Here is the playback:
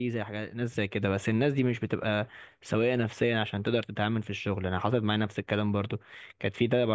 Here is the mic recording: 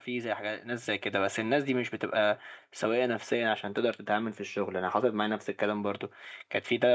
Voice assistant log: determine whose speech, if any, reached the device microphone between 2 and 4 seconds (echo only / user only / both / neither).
echo only